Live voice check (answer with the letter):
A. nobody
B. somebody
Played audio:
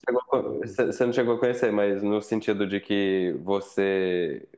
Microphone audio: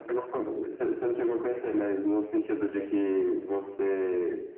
B